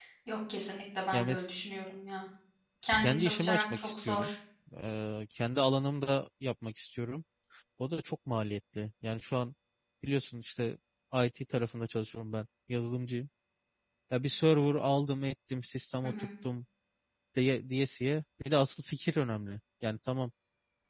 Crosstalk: present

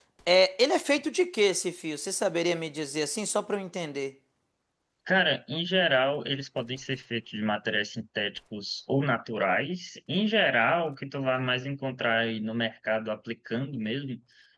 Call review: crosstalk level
none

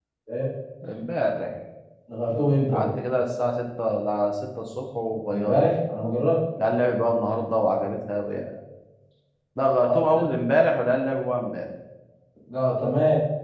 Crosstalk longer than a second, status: none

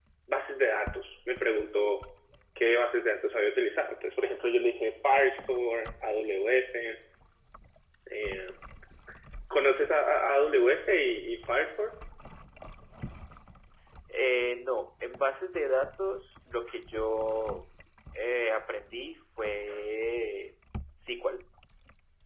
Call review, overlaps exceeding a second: none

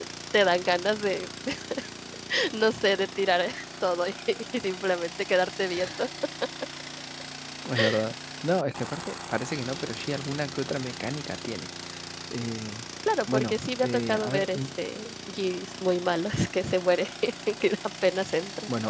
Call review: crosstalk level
present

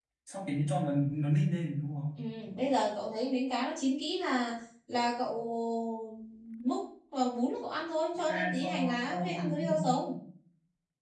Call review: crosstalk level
present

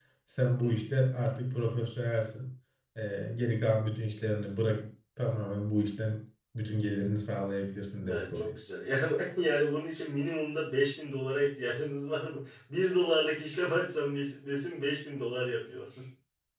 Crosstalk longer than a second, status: none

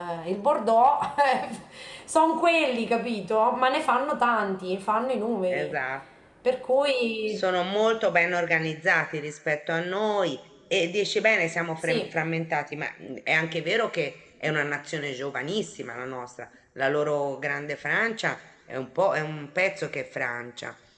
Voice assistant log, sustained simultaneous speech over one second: none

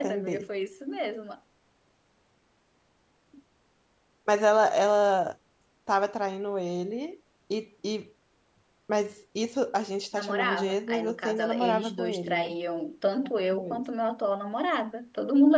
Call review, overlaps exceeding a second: present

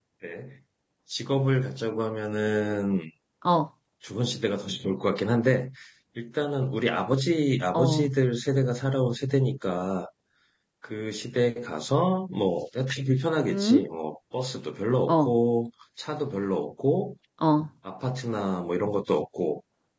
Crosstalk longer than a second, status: none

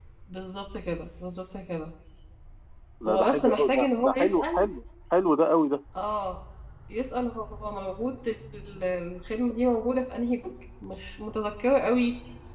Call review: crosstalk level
present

